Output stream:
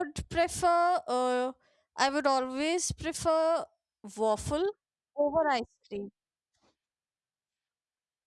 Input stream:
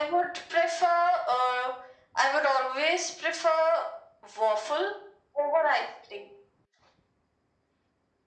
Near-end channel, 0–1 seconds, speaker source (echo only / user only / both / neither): echo only